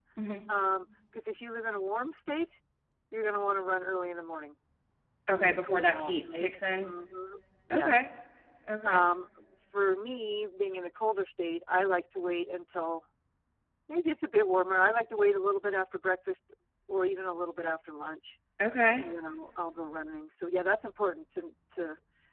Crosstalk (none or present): present